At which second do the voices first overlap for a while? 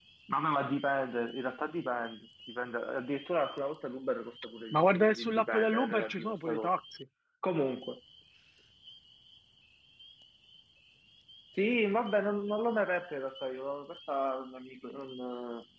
4.7 s

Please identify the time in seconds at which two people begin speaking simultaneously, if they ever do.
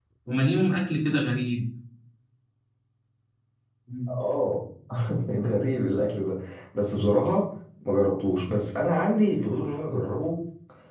none

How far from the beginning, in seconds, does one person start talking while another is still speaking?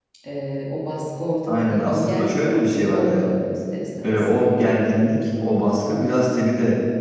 1.5 s

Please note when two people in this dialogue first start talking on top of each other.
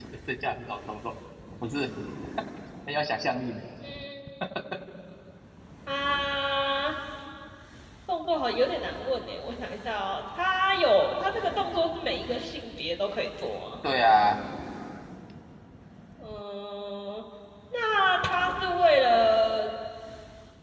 none

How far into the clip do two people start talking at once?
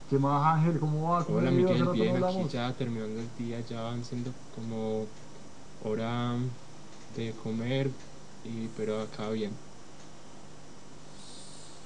1.3 s

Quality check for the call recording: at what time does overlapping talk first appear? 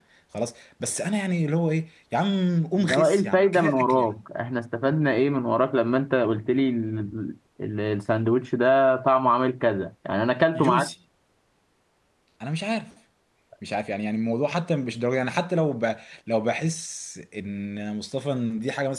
2.8 s

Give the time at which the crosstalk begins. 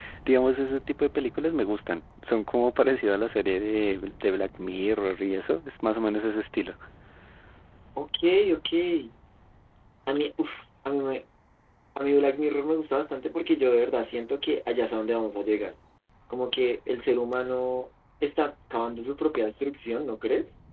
none

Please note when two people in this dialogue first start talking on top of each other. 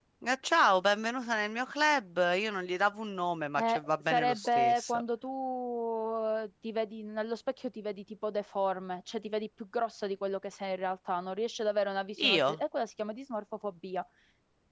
3.6 s

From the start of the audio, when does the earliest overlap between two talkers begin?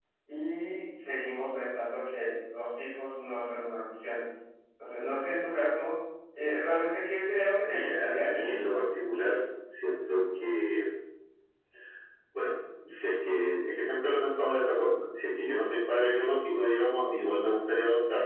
7.6 s

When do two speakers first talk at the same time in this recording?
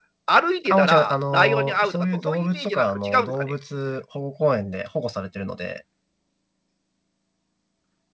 0.7 s

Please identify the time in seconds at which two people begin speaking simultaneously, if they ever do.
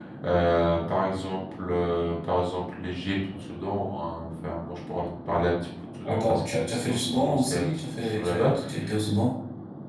6.0 s

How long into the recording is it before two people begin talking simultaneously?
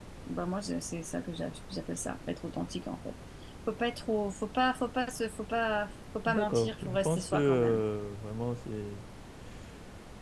6.3 s

